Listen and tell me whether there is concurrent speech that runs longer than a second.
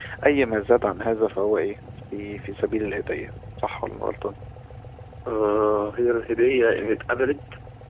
No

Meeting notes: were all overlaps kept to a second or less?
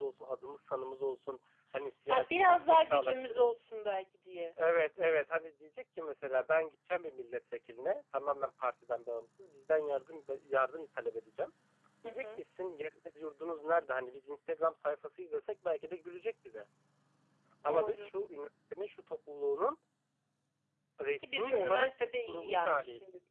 No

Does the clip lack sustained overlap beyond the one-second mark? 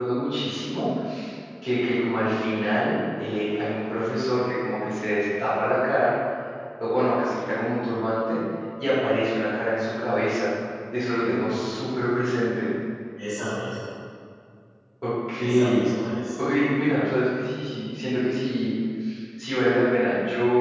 Yes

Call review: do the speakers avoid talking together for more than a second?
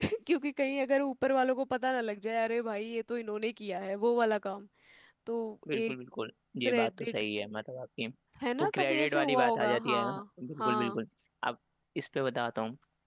No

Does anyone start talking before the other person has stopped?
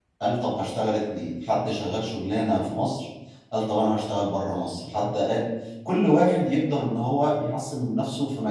No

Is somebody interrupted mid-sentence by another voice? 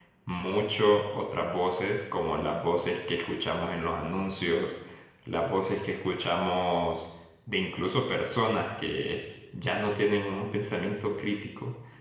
No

